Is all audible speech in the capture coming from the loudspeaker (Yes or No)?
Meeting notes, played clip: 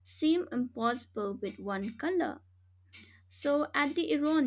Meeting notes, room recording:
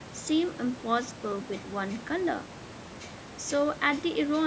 Yes